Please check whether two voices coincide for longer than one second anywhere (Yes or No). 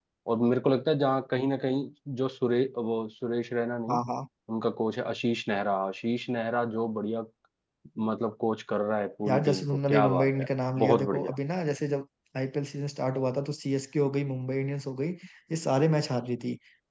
Yes